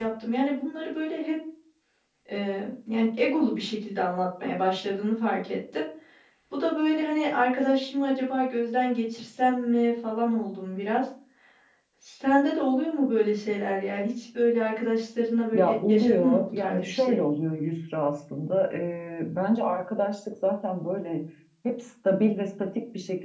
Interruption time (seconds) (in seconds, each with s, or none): 15.5 s